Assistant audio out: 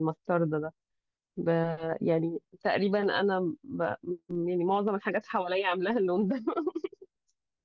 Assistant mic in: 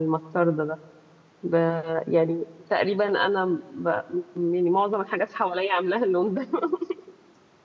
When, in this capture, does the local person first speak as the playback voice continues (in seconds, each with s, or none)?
none